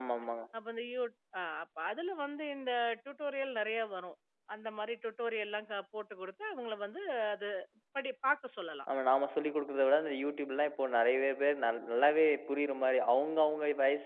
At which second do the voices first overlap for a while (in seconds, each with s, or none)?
none